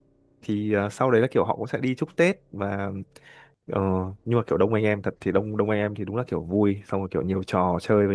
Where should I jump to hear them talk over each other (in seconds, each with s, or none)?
none